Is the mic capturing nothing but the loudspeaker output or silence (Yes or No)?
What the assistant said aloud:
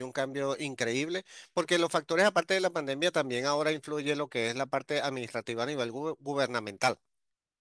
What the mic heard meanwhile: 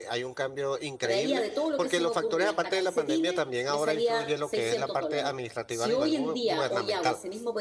No